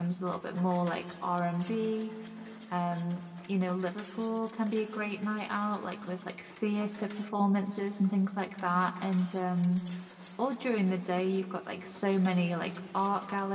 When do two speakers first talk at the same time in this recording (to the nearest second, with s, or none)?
none